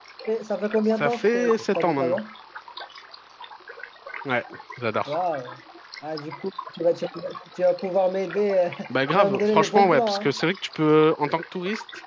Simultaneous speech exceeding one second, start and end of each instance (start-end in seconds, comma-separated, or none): 1.0-2.2, 9.1-10.3